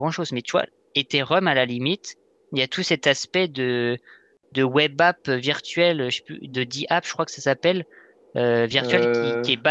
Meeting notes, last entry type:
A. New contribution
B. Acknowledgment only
B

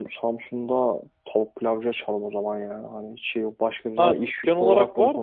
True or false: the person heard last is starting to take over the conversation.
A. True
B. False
A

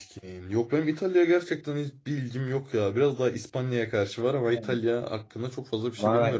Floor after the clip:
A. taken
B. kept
A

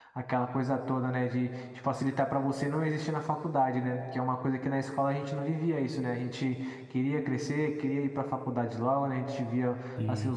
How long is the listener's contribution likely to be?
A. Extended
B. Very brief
B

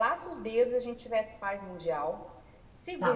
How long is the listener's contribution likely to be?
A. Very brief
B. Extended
B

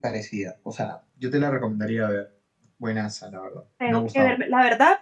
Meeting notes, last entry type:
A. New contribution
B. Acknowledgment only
A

